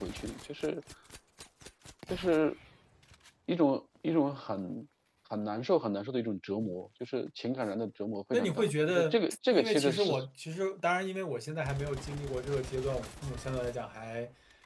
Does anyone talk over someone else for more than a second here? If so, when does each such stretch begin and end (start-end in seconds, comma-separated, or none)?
8.3-10.1